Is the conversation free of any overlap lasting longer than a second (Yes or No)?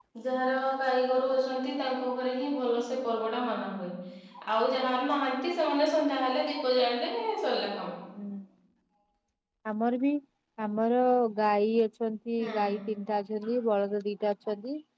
Yes